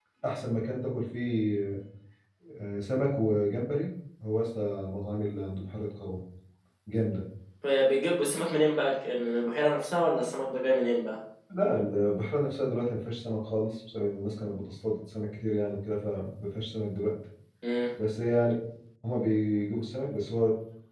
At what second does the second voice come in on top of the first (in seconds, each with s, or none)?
none